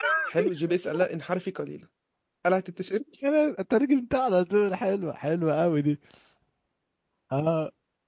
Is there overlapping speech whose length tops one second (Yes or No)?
No